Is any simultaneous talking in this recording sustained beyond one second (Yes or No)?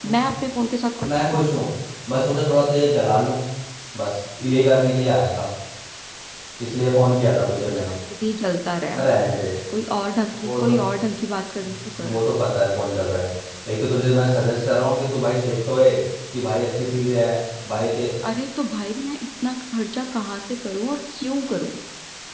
No